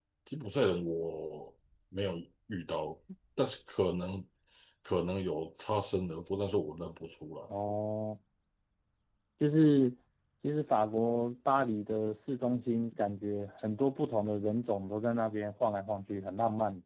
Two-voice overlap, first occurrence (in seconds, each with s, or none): none